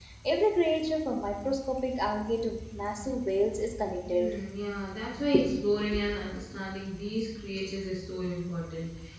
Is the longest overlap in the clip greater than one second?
No

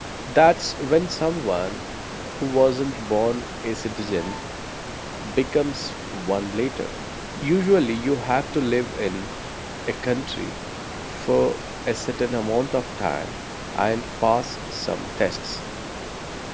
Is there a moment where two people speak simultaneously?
No

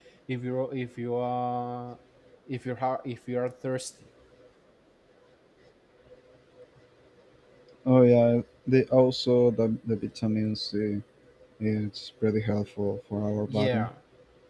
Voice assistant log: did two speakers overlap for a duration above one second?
No

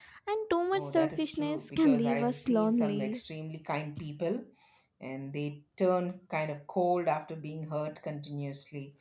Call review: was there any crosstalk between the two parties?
Yes, from 0.7 s

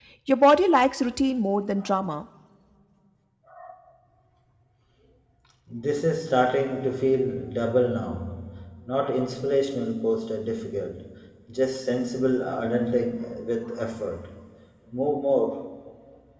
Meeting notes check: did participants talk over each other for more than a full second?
No

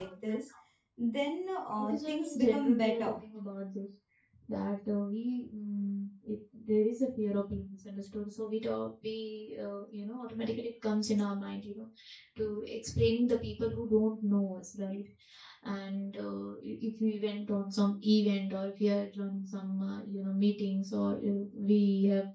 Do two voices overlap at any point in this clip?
Yes, from 1.8 s

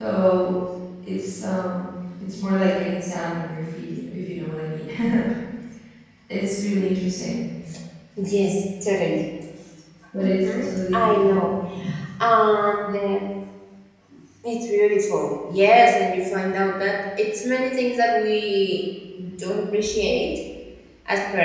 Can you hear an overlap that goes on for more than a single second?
Yes, from 10.2 s

